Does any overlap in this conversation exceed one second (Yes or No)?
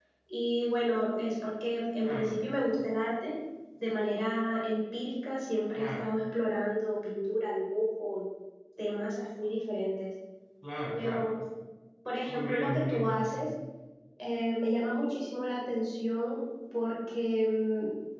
Yes